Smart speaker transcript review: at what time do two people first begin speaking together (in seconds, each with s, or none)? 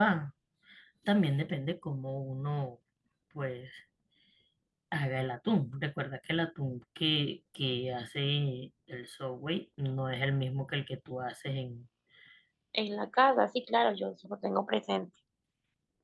none